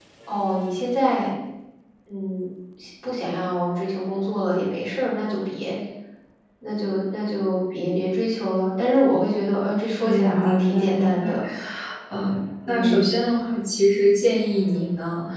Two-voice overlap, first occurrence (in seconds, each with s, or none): 10.0 s